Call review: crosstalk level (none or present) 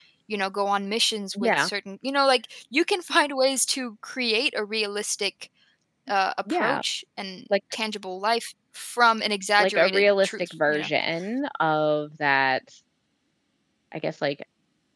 present